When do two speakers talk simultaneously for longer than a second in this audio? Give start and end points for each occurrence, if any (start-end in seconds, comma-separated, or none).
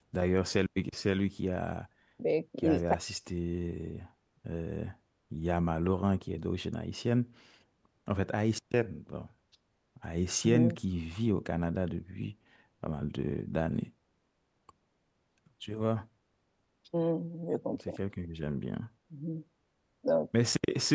none